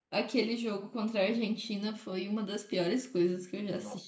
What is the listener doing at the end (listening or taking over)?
listening